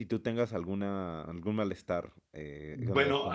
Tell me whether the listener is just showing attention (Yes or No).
No